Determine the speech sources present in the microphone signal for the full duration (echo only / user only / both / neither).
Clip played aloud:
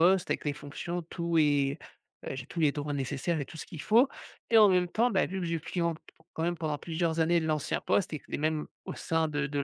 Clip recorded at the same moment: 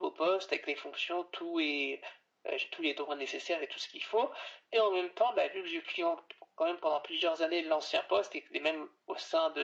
echo only